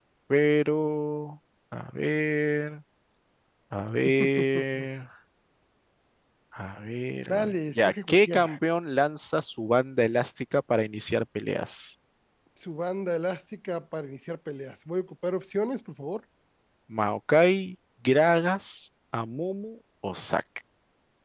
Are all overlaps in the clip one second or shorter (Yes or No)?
No